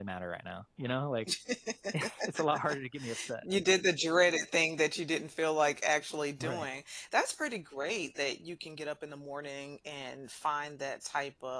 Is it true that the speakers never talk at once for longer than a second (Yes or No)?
Yes